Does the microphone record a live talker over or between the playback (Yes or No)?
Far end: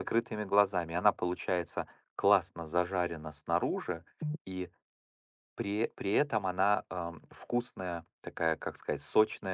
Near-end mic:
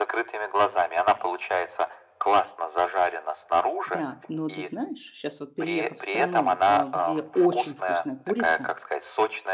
Yes